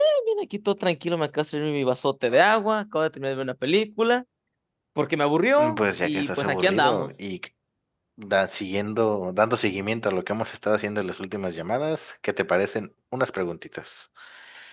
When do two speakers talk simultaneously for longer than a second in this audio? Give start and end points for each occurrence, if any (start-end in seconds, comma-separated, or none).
5.6-7.1